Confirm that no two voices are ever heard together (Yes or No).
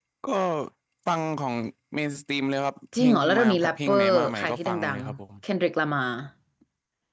No